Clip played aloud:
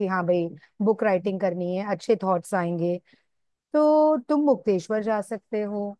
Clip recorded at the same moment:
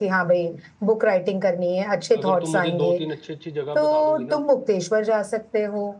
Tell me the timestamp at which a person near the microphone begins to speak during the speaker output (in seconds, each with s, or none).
2.2 s